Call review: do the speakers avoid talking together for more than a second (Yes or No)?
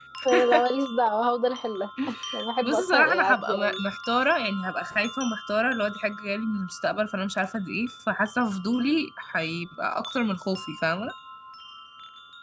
No